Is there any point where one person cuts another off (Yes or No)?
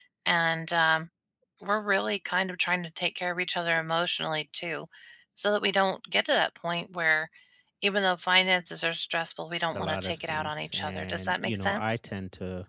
Yes